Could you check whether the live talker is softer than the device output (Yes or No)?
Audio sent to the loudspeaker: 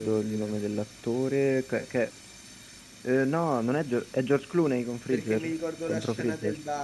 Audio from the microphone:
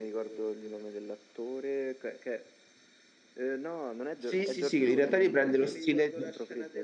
No